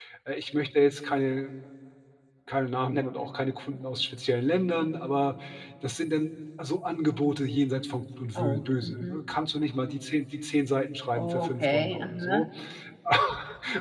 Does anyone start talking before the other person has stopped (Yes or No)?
Yes